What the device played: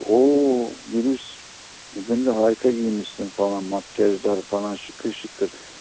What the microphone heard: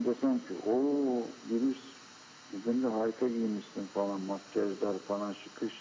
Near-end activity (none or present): none